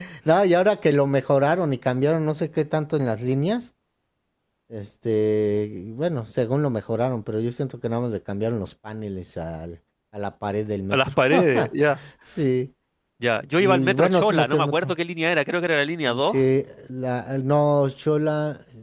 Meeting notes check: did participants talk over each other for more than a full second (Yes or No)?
Yes